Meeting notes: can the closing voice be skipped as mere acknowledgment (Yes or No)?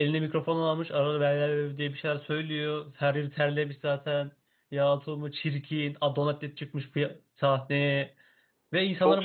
No